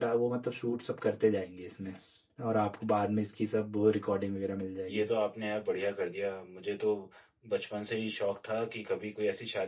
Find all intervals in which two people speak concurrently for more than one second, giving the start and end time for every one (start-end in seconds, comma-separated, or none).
none